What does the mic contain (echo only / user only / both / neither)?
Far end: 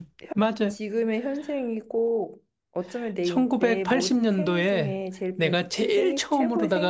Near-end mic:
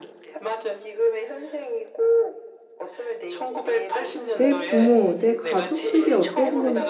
both